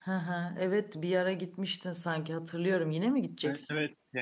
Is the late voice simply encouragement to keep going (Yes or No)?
No